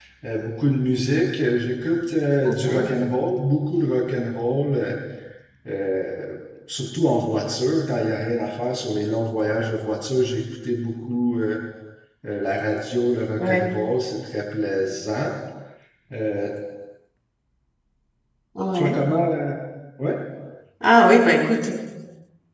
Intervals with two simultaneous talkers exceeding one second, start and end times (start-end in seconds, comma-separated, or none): none